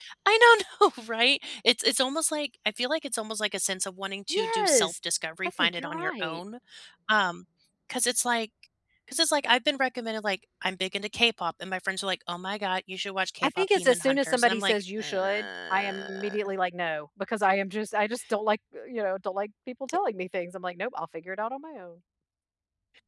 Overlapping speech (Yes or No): Yes